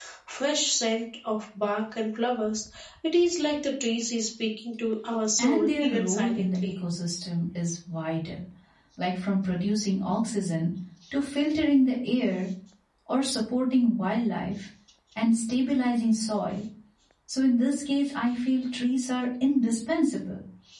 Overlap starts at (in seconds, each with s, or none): 5.4 s